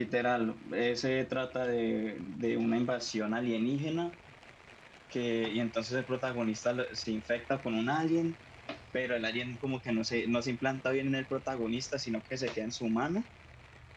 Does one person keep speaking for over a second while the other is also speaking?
No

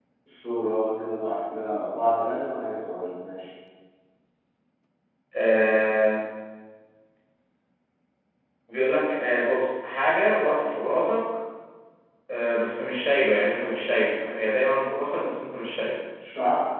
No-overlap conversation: Yes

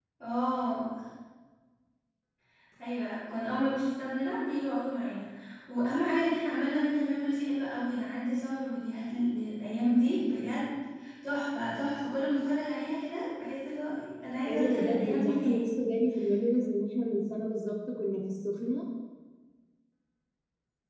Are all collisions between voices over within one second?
No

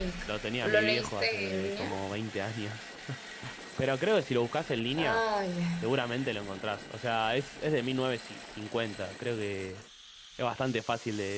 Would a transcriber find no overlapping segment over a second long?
No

